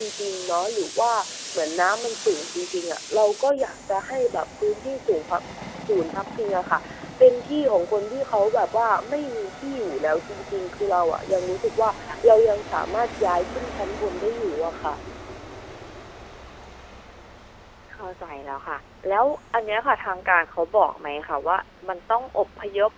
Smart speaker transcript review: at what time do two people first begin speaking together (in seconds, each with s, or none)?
none